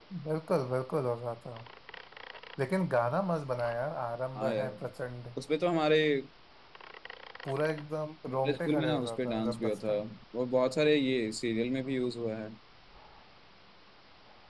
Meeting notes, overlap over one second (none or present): present